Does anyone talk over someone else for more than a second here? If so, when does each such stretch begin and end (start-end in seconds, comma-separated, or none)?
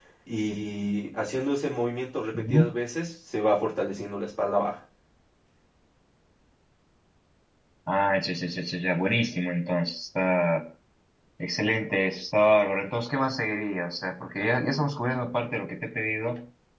none